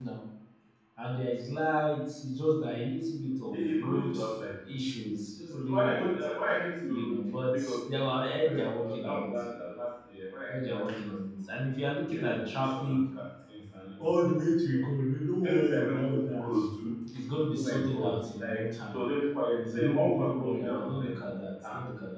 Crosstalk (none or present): present